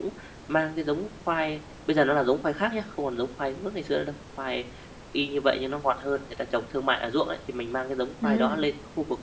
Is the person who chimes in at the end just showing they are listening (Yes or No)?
Yes